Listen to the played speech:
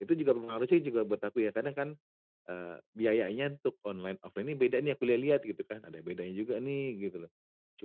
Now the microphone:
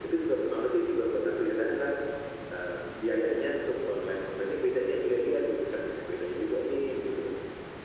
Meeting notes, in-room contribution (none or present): none